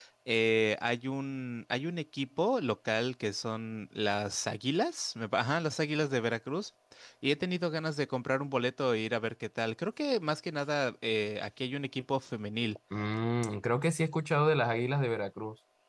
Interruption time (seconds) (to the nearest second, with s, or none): none